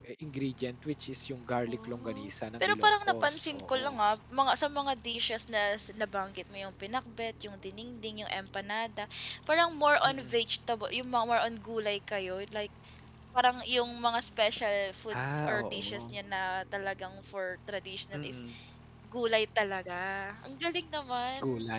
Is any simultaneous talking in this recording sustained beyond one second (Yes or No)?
Yes